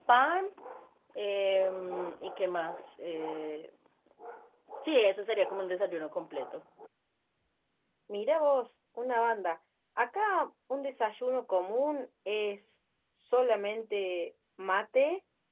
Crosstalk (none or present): none